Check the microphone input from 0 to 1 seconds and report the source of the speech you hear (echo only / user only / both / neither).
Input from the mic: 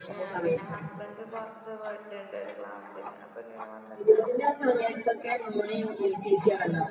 both